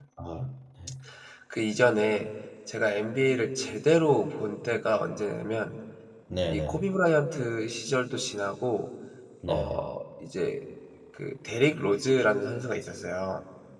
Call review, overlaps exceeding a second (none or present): none